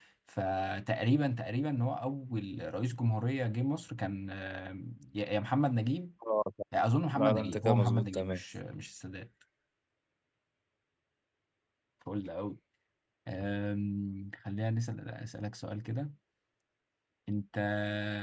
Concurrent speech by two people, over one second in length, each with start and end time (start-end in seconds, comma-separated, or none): 7.1-8.4